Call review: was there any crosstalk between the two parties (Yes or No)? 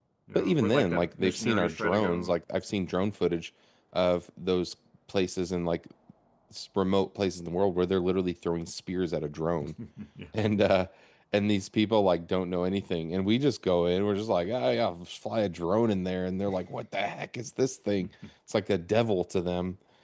Yes